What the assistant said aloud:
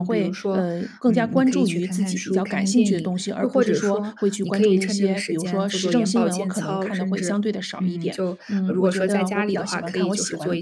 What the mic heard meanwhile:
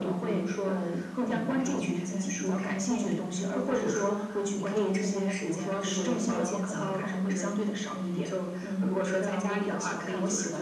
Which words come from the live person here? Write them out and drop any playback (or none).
none